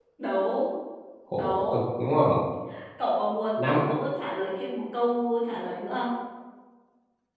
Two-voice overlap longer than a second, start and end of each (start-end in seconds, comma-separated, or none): none